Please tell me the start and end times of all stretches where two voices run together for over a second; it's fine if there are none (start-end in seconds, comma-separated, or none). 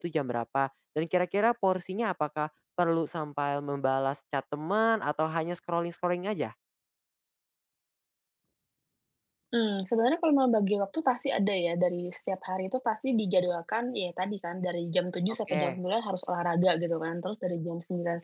none